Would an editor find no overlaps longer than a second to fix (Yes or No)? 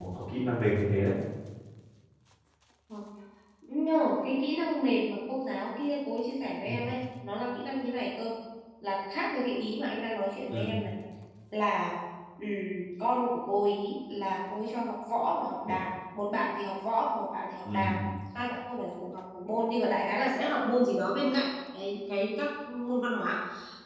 Yes